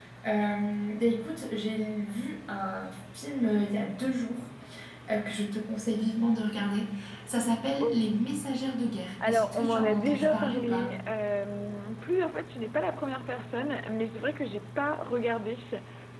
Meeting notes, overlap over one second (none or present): present